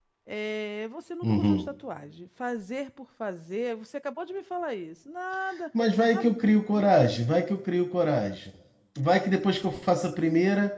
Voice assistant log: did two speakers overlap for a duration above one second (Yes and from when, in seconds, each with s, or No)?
No